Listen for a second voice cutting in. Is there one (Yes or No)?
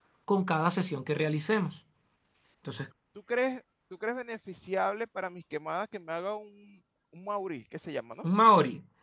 No